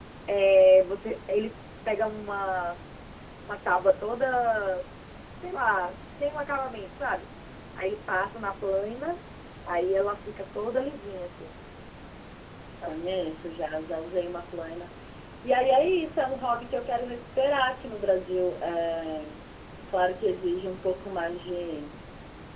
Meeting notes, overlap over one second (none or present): none